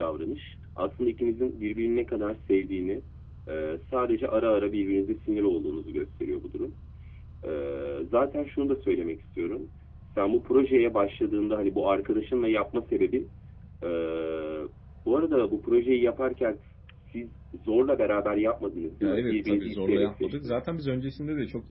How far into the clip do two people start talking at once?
19.0 s

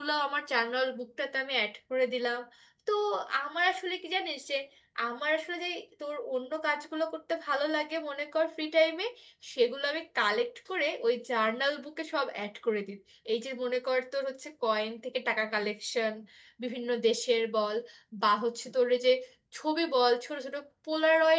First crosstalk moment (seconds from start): none

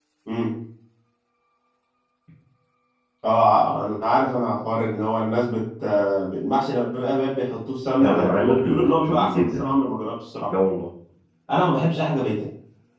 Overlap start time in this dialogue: 8.0 s

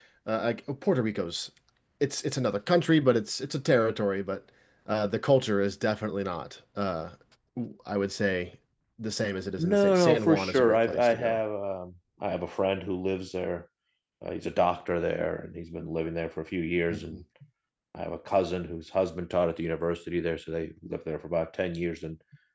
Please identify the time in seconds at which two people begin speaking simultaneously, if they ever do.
9.6 s

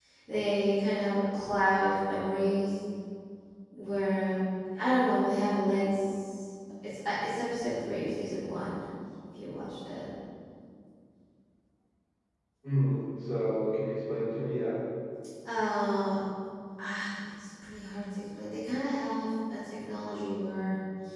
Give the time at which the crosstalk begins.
none

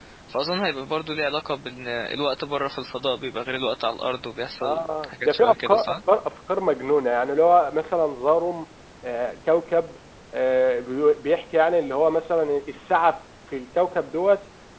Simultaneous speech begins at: 4.6 s

